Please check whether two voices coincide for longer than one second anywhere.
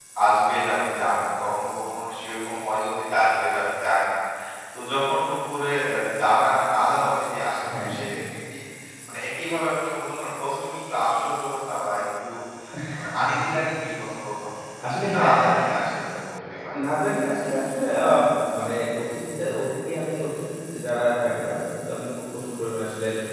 No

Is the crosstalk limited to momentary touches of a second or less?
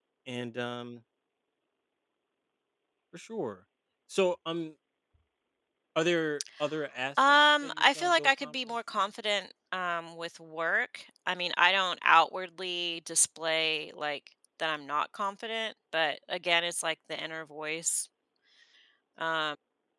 No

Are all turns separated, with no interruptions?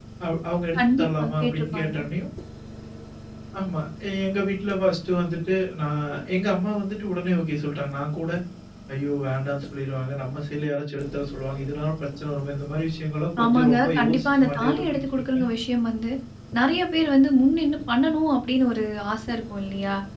No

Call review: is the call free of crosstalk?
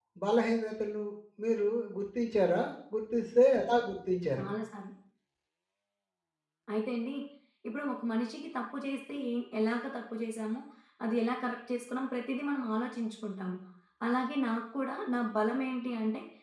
Yes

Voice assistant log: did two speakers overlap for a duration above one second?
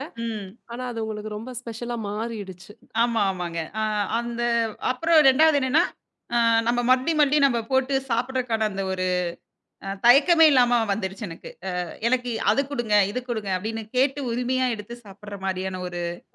No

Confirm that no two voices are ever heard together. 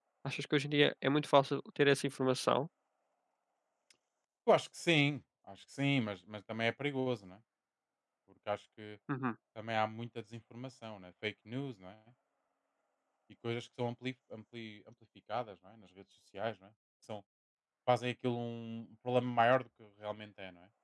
Yes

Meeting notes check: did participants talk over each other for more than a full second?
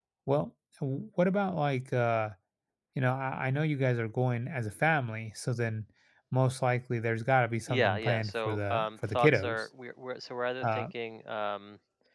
Yes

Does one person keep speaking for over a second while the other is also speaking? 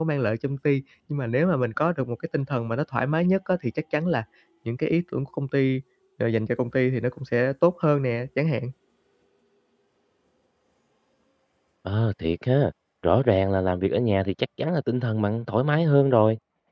No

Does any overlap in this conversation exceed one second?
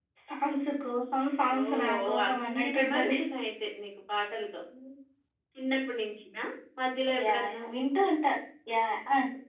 Yes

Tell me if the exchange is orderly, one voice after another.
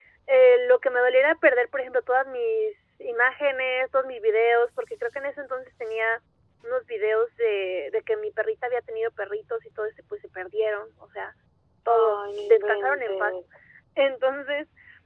No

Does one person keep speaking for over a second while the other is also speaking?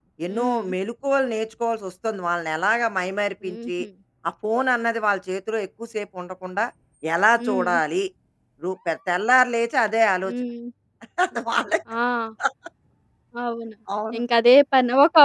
No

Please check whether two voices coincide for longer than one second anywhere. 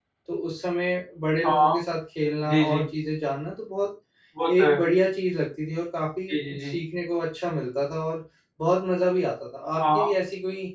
No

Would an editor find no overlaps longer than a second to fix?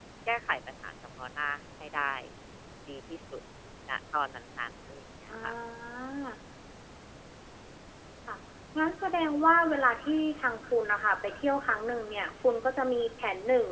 Yes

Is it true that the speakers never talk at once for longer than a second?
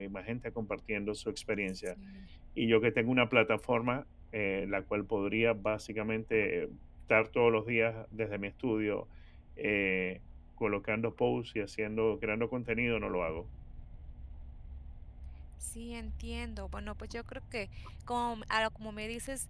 Yes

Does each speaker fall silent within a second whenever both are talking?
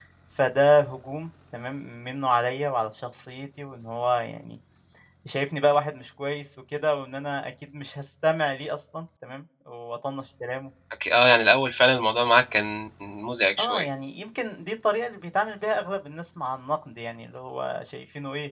Yes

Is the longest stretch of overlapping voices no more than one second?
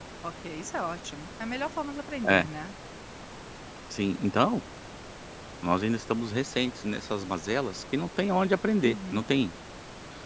Yes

